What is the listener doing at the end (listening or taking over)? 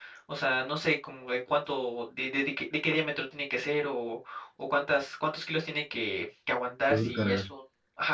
listening